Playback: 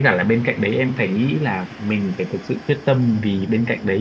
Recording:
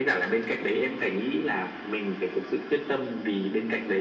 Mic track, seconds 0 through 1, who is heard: echo only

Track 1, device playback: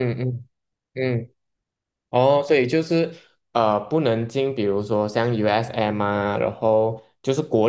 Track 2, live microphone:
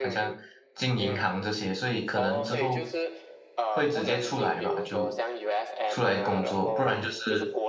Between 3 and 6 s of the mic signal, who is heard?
both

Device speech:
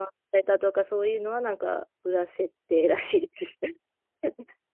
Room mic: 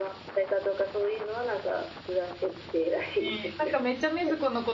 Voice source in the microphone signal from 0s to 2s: echo only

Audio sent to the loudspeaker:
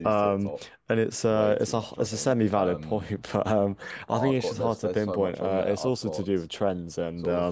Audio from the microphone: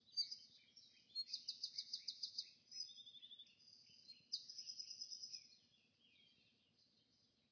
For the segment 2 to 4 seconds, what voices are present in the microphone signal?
neither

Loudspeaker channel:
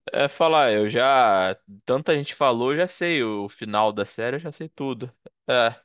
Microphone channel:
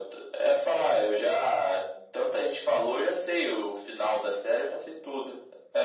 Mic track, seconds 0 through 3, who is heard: echo only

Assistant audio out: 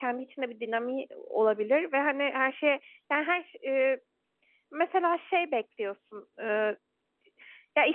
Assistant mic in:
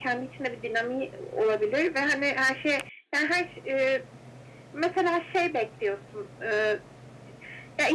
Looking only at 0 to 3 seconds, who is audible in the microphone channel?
echo only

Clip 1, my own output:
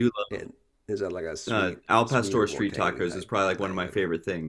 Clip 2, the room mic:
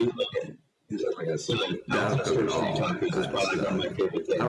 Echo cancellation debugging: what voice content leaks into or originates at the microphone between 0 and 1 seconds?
echo only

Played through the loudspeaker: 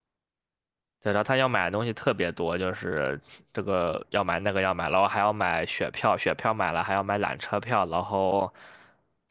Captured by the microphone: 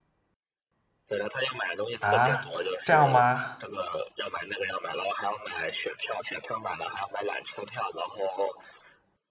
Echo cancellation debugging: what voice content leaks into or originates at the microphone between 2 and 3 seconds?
both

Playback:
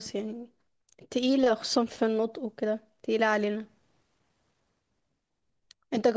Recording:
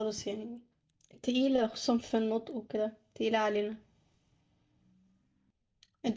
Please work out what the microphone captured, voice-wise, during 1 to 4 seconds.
echo only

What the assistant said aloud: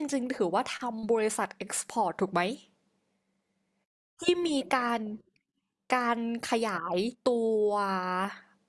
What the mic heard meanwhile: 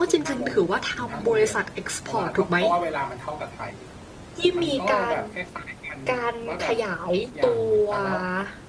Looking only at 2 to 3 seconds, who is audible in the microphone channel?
both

